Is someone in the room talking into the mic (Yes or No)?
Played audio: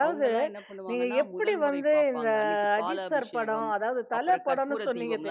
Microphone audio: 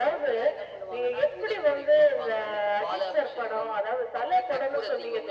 No